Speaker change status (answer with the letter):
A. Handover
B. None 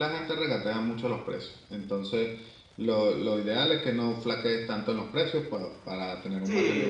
A